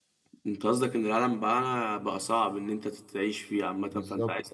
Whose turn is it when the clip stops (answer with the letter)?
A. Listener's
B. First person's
A